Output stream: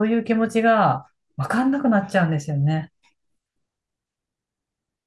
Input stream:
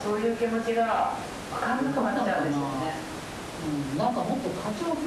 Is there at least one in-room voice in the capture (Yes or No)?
Yes